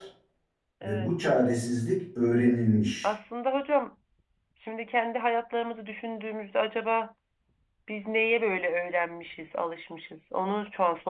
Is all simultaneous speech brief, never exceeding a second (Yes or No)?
Yes